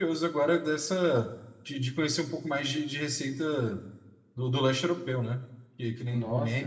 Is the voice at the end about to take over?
Yes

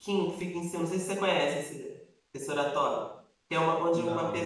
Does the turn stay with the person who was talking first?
Yes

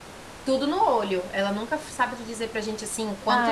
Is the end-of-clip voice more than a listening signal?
Yes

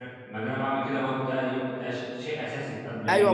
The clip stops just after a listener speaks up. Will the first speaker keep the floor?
No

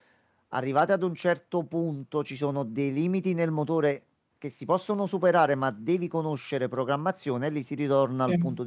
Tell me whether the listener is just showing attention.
Yes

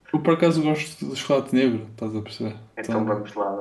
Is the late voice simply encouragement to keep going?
No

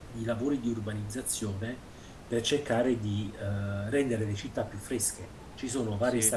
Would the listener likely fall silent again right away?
Yes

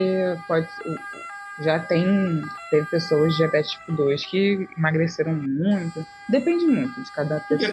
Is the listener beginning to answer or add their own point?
Yes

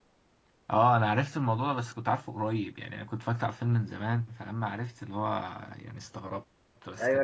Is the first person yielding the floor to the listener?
Yes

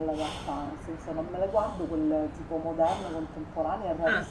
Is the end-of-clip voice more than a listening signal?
No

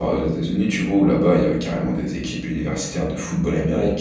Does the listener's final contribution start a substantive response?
No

